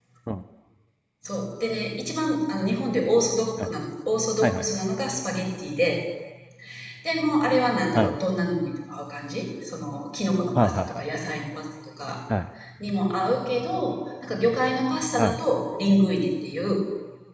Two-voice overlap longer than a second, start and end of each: none

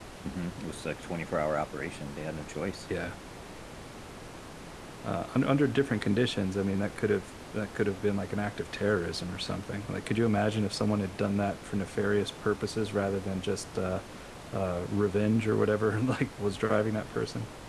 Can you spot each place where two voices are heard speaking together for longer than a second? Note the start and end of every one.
none

